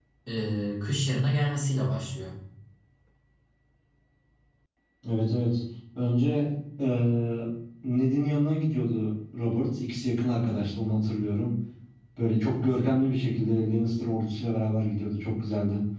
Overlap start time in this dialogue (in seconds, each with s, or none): none